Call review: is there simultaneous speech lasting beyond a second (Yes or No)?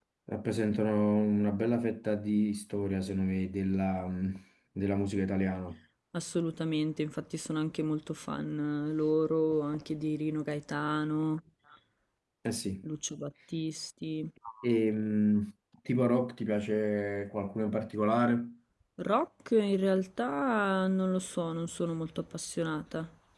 No